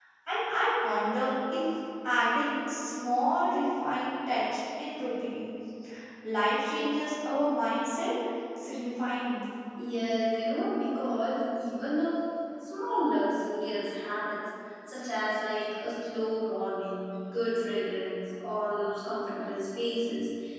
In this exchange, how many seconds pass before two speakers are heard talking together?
none

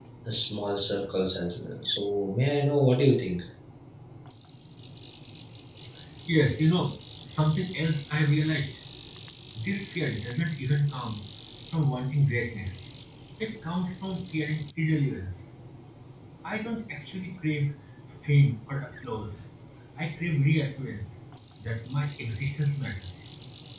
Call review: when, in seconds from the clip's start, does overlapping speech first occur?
none

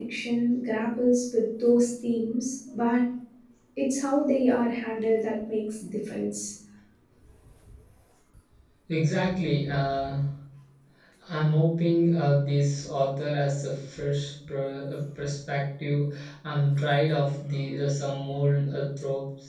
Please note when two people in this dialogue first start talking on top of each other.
none

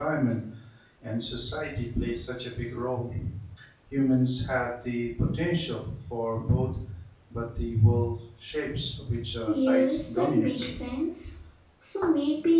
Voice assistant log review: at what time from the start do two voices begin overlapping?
9.4 s

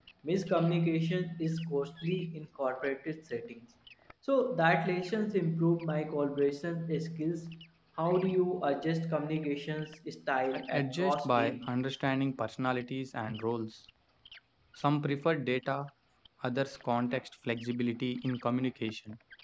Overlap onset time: 10.5 s

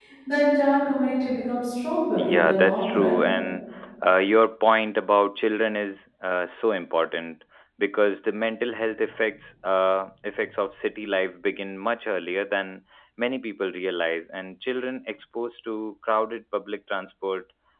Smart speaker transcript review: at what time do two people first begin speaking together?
2.2 s

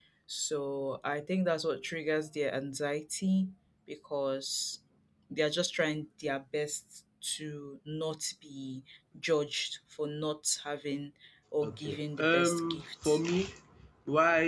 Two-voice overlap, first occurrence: 11.6 s

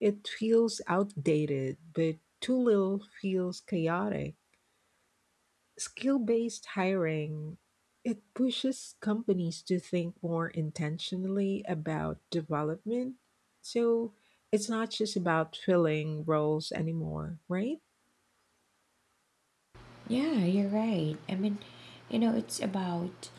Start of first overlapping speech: none

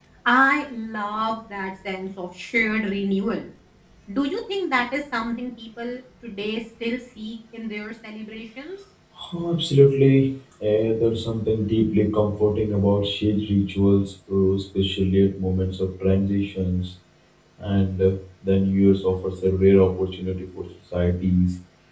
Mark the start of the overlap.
none

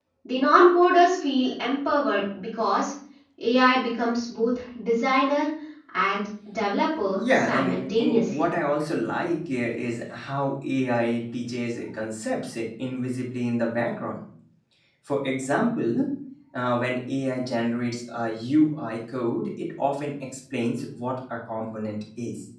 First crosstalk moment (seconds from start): 7.2 s

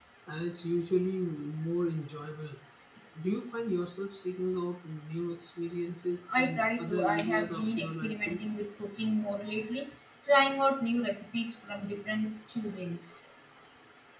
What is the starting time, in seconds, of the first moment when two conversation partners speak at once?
6.3 s

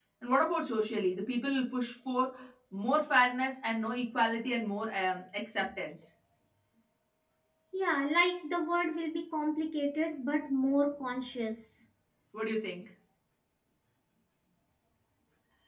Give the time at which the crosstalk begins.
none

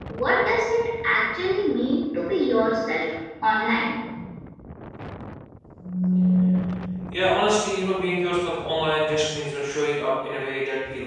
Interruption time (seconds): none

